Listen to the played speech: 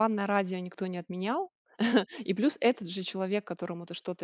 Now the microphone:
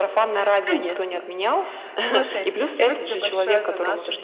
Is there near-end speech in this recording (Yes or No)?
Yes